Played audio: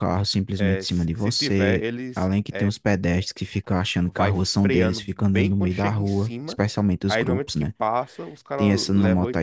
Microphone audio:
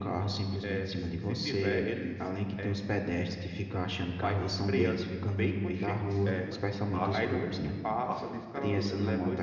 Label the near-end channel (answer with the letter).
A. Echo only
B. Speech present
B